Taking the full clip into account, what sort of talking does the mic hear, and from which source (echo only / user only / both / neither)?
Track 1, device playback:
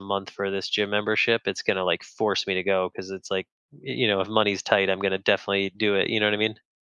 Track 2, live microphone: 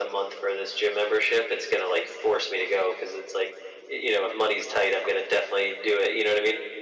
echo only